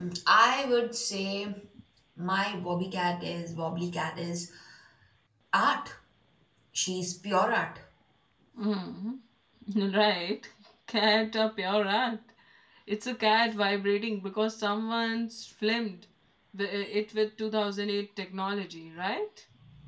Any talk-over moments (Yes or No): No